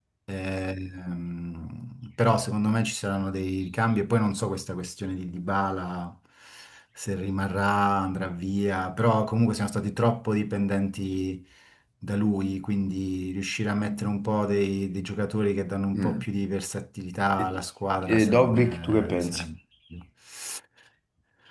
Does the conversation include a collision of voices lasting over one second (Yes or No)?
Yes